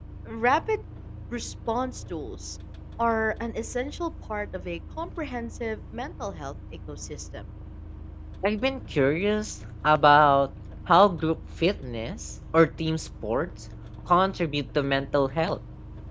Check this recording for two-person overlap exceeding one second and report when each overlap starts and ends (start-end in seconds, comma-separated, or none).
none